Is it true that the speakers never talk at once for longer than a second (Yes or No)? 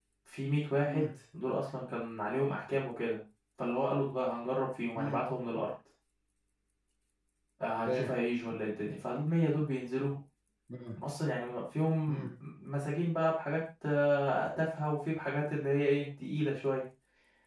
Yes